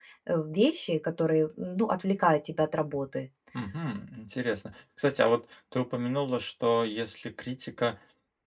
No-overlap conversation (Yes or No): Yes